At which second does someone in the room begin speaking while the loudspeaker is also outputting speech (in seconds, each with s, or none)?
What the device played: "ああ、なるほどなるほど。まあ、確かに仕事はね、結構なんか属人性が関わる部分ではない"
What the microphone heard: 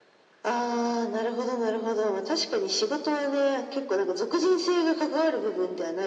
none